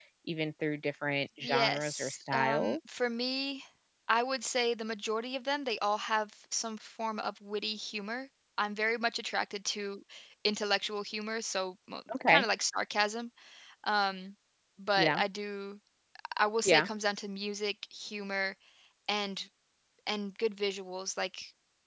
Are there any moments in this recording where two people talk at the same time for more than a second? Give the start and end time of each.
1.4-2.8

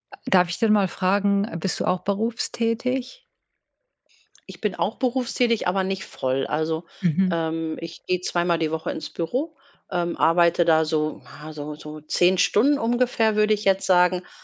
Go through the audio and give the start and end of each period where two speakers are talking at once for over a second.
none

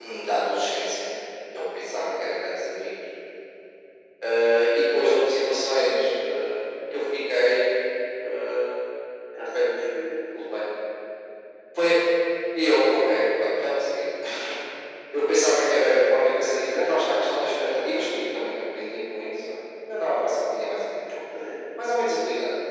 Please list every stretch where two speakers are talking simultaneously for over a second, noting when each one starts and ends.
none

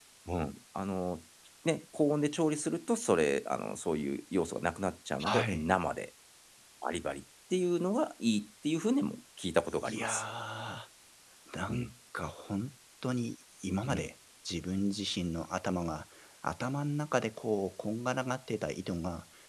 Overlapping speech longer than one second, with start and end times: none

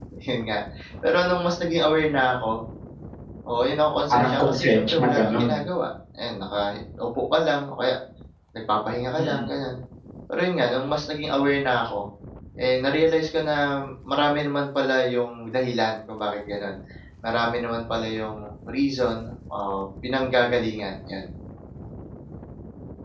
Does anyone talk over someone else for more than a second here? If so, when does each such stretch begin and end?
4.1-5.5

